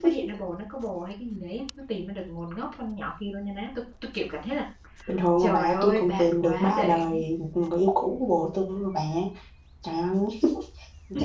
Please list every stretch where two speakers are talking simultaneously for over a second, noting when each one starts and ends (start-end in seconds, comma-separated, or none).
5.4-7.2